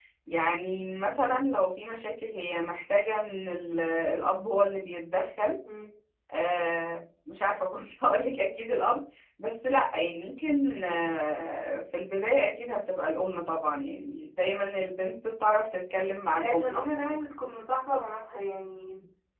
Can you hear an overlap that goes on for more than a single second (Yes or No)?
No